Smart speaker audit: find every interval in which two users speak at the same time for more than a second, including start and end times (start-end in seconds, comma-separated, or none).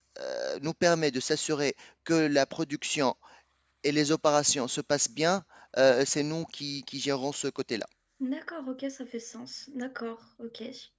none